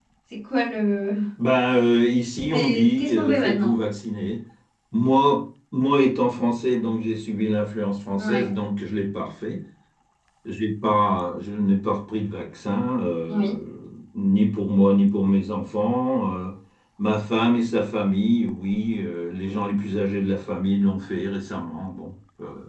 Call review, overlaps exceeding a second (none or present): present